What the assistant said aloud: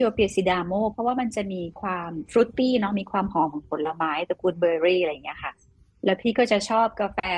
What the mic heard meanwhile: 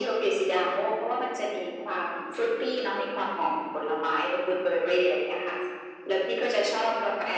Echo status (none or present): present